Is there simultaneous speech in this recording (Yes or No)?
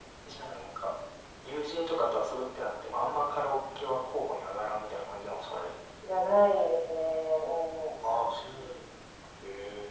No